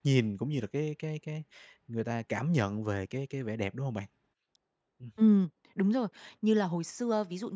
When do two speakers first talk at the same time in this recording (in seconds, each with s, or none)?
none